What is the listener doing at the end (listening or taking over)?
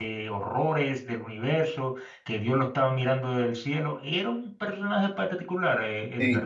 taking over